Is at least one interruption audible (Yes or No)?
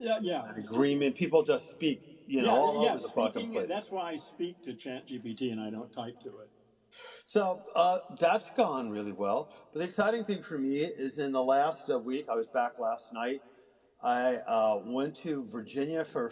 Yes